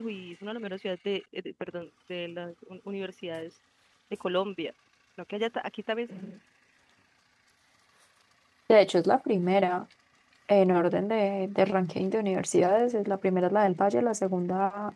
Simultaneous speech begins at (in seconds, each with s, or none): none